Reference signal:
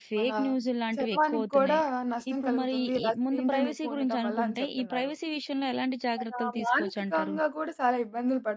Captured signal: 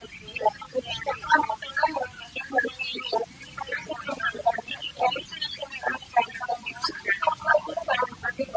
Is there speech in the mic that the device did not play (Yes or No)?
No